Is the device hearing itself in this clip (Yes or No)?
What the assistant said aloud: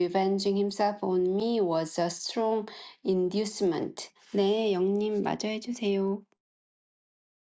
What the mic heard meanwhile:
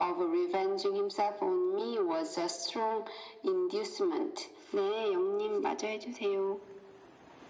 Yes